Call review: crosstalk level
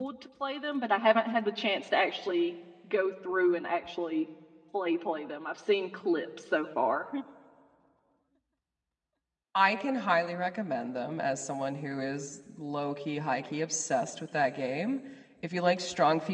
none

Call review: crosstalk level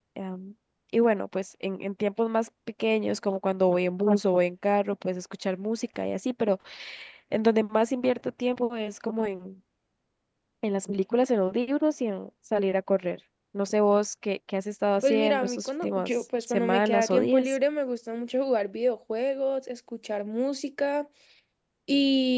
present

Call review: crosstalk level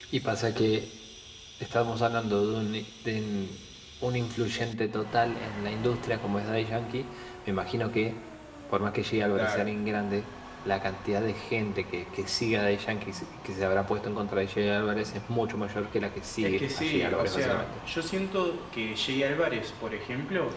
present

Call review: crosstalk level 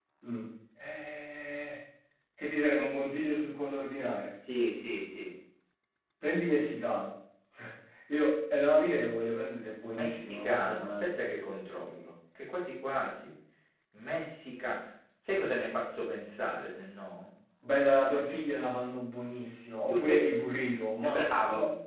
present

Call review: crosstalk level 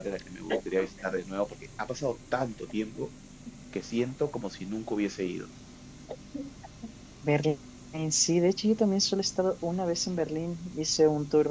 none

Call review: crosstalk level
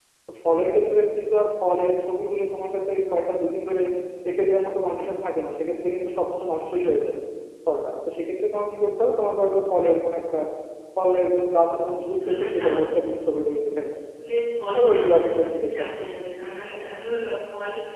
present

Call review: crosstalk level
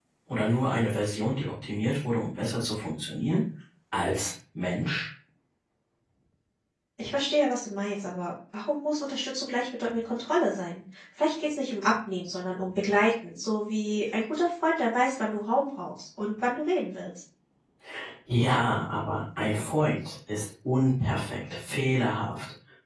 none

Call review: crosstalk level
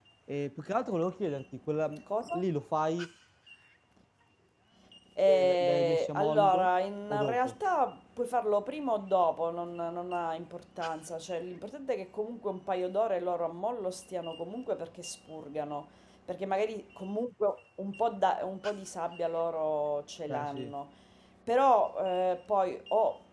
present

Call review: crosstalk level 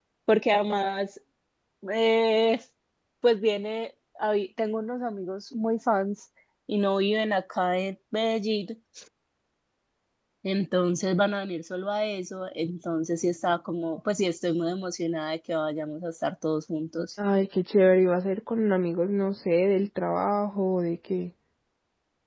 none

